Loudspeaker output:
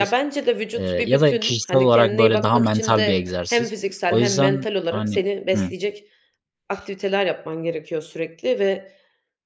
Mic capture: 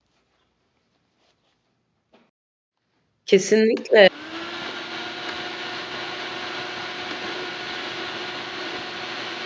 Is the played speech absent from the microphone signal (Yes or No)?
Yes